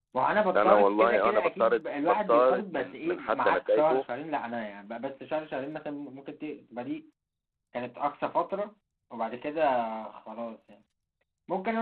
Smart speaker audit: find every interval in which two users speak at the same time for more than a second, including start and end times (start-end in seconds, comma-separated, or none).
0.6-4.0